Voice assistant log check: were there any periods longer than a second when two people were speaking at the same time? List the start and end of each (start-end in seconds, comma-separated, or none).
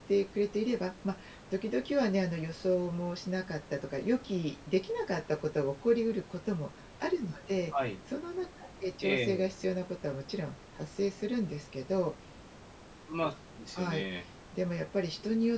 none